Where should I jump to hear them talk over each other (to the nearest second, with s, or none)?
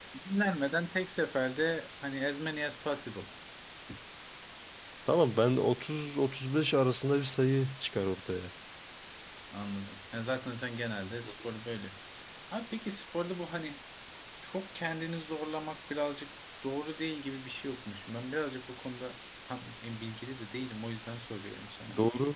none